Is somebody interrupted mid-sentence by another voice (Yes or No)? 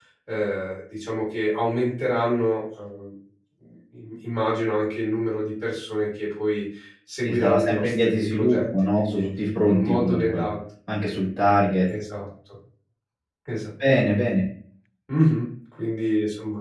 Yes